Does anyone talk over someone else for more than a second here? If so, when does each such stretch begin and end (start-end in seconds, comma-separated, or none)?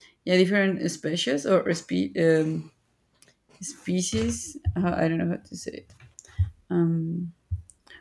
none